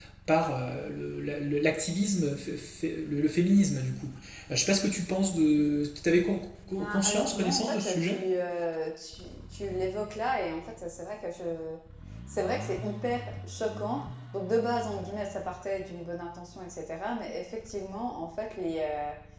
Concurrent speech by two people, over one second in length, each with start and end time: 6.8-8.2

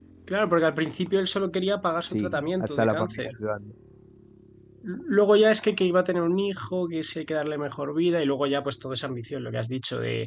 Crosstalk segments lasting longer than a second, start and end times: 2.0-3.3

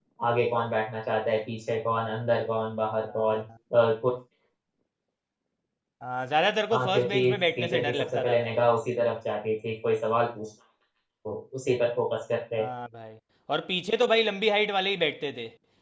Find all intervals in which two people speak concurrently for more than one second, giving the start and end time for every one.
6.7-8.6

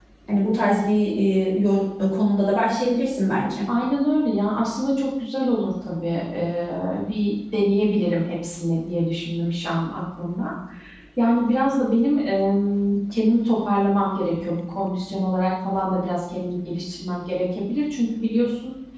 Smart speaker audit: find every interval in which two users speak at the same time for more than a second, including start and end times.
none

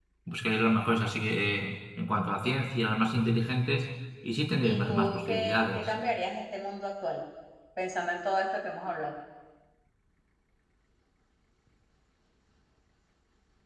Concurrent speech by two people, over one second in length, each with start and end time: 4.6-5.9

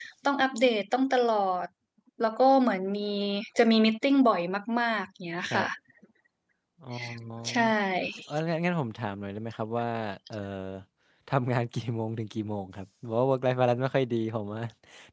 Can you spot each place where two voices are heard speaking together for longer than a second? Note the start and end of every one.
none

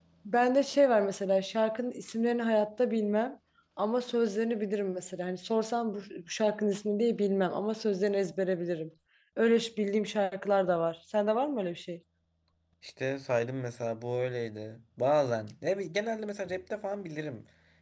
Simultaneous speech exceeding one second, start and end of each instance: none

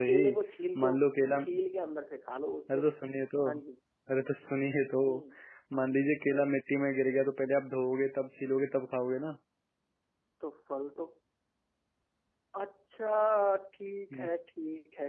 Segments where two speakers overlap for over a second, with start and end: none

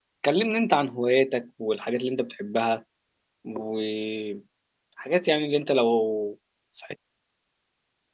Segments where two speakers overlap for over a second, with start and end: none

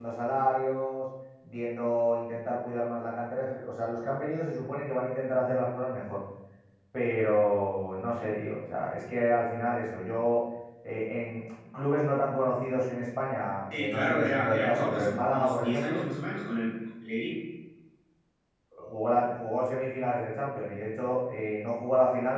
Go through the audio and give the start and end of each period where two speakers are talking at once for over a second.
13.7-16.0

